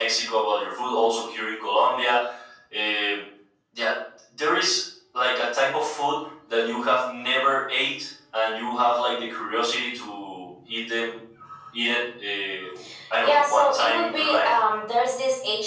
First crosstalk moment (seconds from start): 13 s

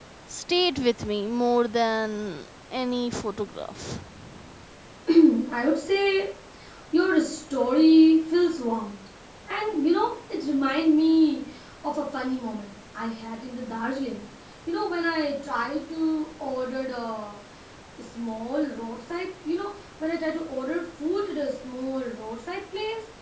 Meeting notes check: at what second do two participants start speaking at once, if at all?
none

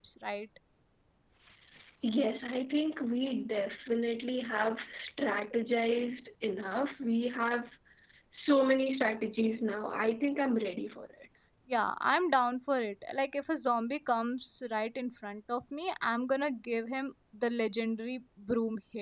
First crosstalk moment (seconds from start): none

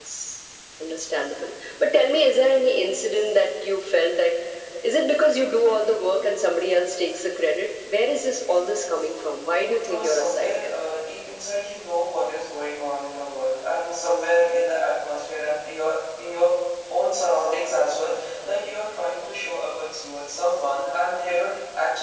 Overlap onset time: 9 s

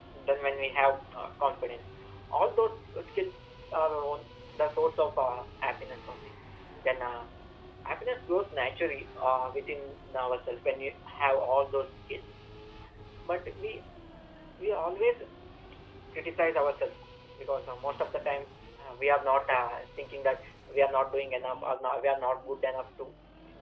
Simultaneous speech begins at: none

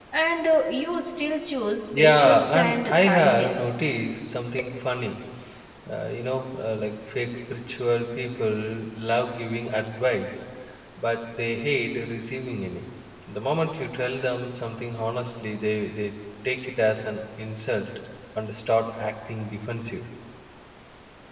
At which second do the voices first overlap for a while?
2 s

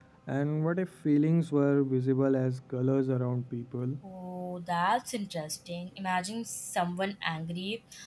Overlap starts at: none

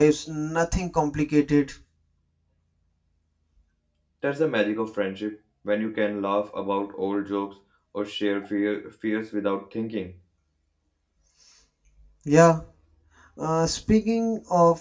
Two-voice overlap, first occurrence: none

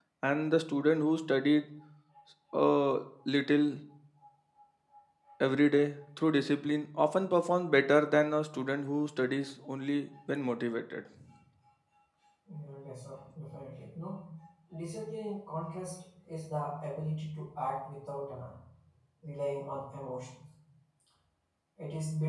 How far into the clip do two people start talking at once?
none

